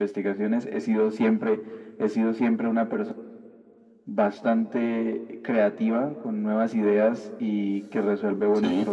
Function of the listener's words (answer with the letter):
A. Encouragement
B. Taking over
A